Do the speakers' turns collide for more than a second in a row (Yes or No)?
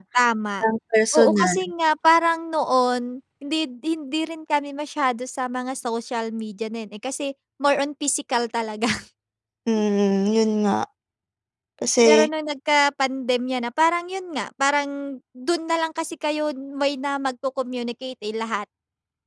No